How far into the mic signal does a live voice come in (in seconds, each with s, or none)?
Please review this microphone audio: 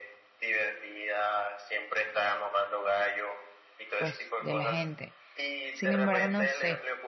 4.0 s